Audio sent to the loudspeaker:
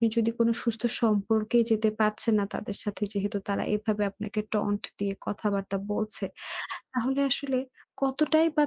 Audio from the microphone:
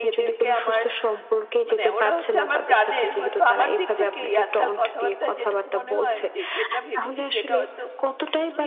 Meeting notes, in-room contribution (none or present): present